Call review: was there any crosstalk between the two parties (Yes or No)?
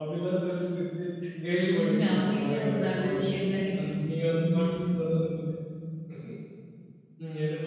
Yes